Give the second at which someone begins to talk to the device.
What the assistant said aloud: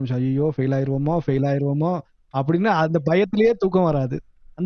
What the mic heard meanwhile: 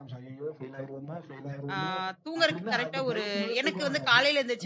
1.7 s

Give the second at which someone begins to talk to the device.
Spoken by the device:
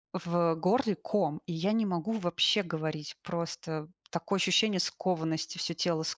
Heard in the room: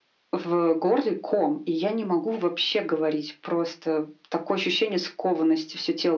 none

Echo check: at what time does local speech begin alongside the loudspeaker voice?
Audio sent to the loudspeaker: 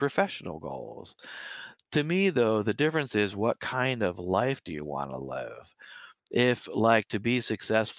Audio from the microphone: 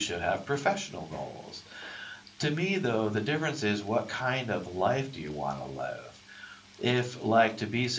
none

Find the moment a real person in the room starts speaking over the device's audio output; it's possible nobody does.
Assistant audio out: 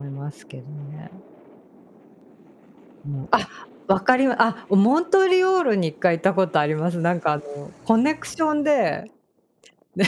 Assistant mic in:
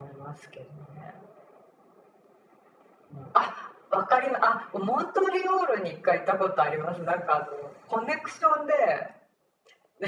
none

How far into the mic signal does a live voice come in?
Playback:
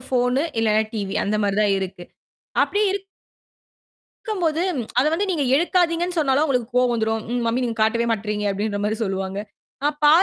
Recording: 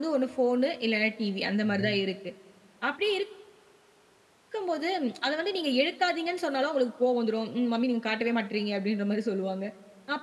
1.6 s

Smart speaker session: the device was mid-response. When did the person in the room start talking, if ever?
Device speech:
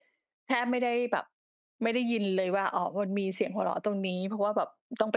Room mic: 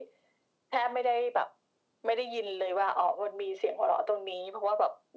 none

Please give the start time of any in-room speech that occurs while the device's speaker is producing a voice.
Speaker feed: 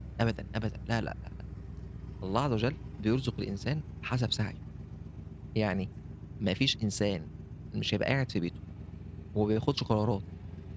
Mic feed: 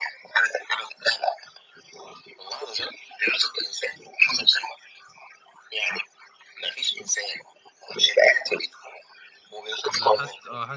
9.9 s

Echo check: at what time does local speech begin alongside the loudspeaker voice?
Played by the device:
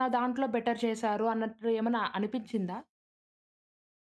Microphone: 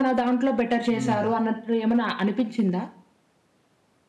0.9 s

